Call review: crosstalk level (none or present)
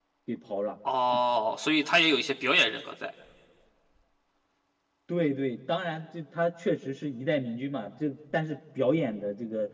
none